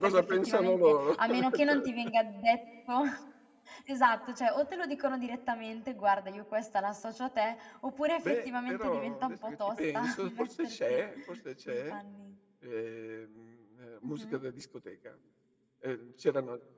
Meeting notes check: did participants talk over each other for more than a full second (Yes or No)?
Yes